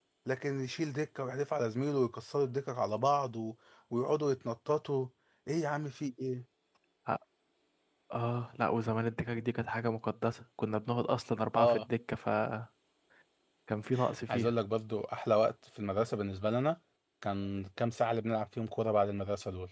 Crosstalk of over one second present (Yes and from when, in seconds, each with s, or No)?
No